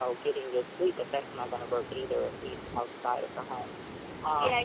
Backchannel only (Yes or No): No